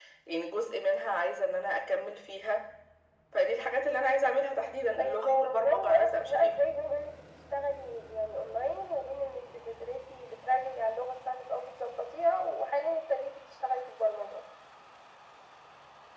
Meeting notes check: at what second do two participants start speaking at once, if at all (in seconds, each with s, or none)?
5.0 s